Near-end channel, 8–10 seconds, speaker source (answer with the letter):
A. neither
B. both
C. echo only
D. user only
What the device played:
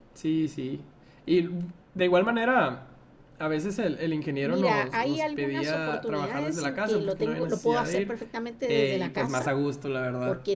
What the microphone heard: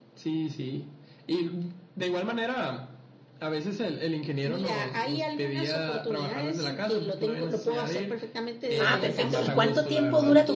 B